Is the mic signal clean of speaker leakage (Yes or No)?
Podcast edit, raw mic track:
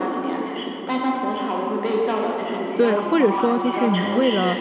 No